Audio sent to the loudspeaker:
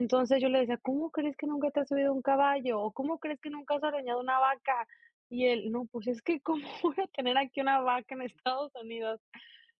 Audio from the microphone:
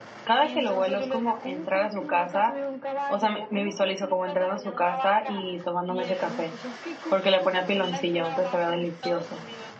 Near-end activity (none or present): present